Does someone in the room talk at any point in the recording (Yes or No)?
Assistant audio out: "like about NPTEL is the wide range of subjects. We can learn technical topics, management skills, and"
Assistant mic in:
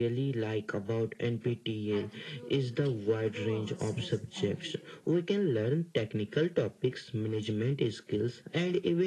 Yes